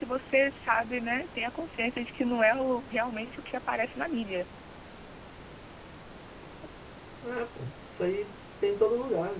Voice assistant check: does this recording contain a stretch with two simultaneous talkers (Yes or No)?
No